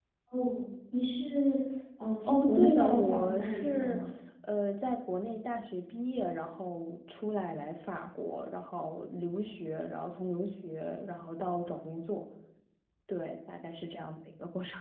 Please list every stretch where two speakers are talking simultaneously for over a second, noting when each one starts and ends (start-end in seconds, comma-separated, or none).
2.2-4.0